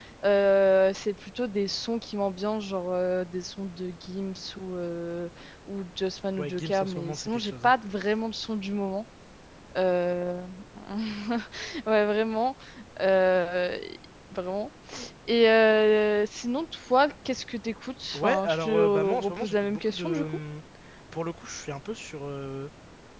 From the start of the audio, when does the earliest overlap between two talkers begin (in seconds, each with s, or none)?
6.4 s